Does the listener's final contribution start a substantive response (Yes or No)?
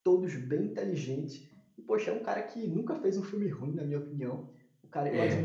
No